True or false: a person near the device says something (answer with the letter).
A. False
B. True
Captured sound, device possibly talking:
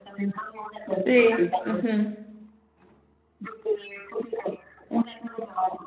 B